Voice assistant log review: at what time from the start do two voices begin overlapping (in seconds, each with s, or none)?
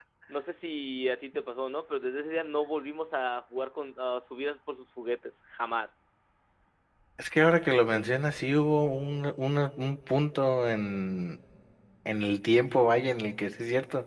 none